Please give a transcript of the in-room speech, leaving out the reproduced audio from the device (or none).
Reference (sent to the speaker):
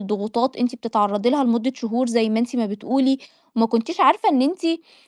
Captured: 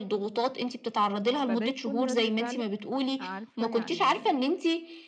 فده يكون رَد فعلِك عارفة يعني